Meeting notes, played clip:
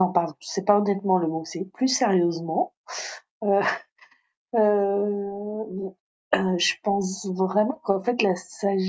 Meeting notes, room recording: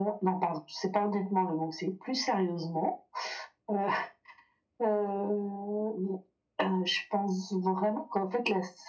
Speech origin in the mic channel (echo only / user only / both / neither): echo only